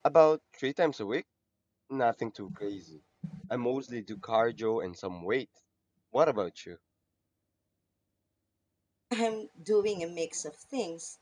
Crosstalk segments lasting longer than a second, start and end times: none

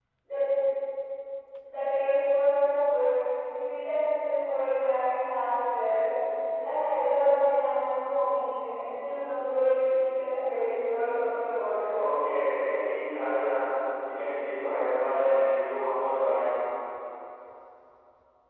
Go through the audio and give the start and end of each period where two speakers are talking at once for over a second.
none

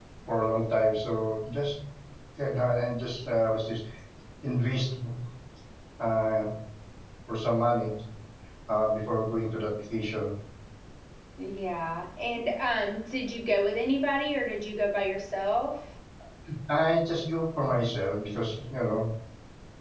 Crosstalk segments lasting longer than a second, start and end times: none

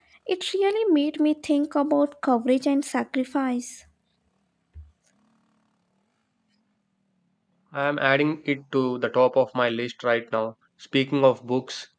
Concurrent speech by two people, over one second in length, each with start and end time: none

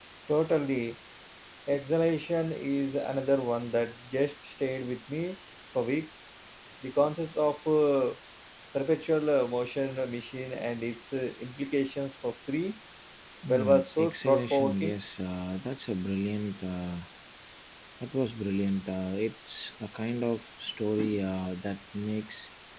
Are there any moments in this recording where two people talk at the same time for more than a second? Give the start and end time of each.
13.5-15.0

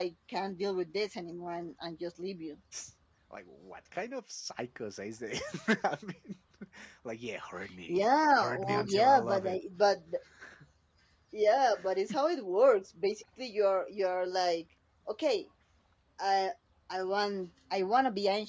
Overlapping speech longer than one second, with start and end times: 8.3-9.6

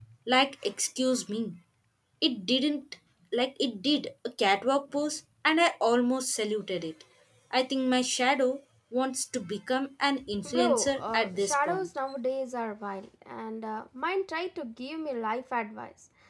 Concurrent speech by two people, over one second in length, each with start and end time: 10.4-11.9

